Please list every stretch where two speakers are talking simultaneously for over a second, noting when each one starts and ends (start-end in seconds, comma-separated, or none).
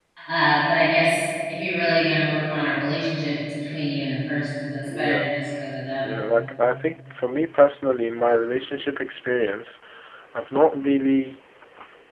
none